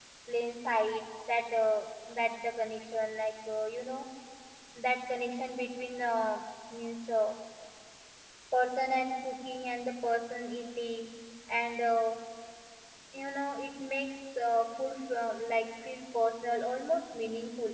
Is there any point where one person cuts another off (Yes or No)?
No